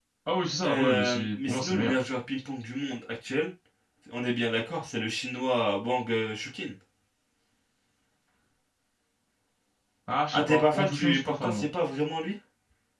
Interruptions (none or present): present